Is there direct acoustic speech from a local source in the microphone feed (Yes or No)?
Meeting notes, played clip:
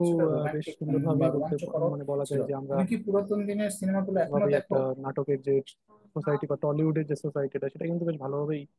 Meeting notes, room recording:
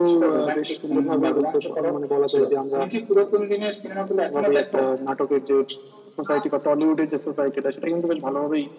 No